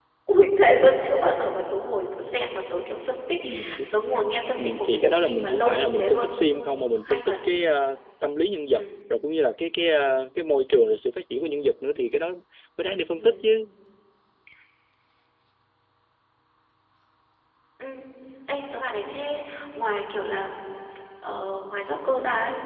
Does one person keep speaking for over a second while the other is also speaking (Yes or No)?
Yes